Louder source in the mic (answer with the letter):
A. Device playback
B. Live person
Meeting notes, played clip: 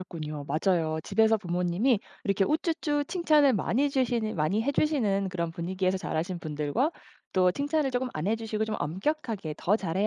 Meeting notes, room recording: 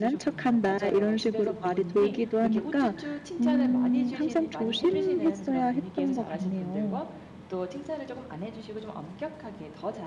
B